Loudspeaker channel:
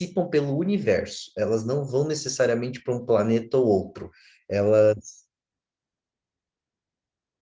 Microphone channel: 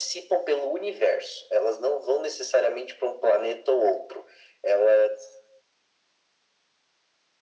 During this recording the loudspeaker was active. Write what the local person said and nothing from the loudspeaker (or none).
none